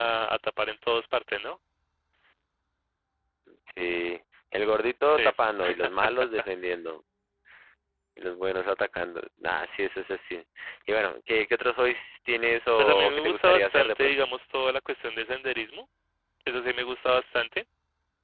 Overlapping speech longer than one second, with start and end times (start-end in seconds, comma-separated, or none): 12.8-14.2